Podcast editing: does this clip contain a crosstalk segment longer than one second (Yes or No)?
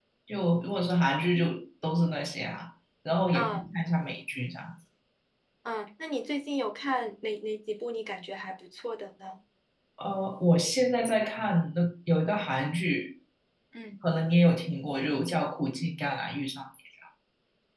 No